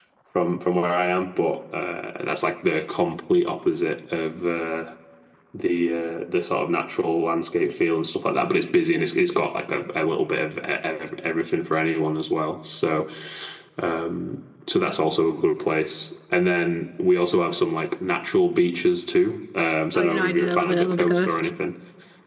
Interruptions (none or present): present